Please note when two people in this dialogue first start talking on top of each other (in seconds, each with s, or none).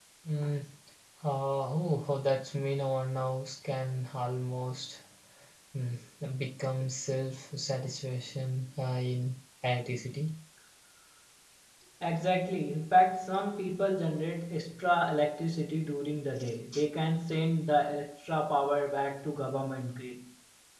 none